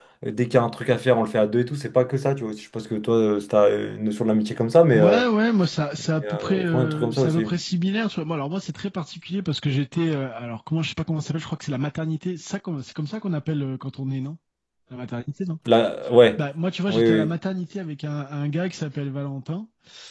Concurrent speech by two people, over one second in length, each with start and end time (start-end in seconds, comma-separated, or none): 6.2-7.5